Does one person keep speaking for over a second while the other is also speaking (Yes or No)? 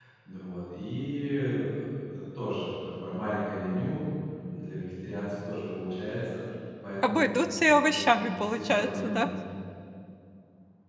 Yes